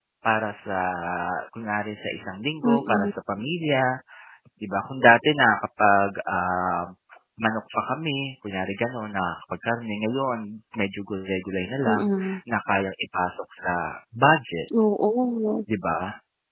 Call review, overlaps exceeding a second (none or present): none